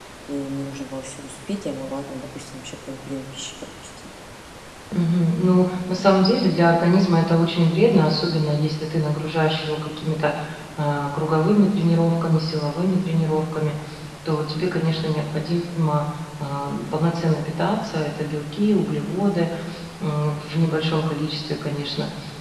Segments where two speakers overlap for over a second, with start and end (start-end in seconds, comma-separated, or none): none